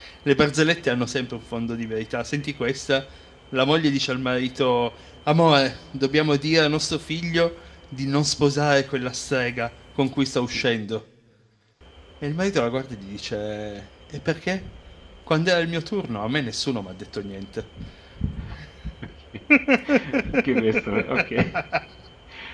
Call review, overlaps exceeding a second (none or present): none